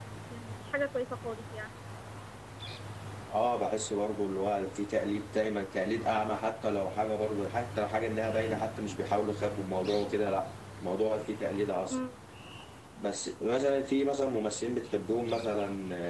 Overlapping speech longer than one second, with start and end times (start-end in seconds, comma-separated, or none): none